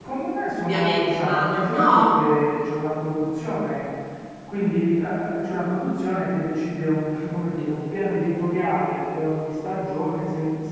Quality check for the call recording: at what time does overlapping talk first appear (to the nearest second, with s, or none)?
1 s